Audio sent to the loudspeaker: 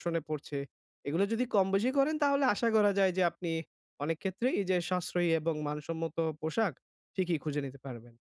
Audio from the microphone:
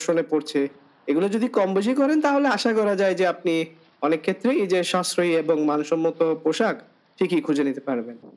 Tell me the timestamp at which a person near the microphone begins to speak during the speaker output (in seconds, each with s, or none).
none